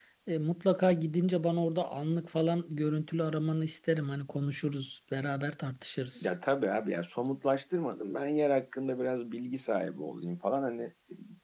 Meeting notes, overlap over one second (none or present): none